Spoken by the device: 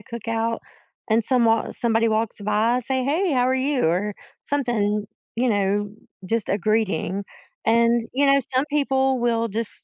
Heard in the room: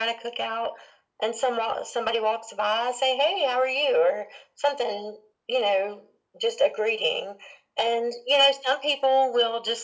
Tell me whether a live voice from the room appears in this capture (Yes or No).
No